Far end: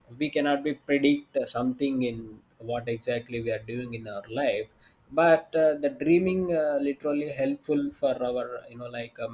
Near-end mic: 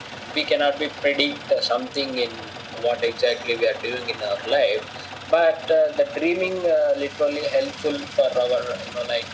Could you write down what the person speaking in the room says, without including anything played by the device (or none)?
none